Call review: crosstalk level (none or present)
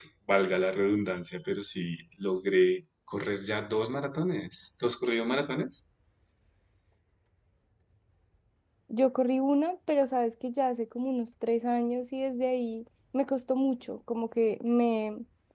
none